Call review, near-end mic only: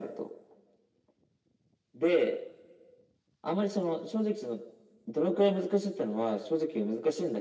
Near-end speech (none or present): none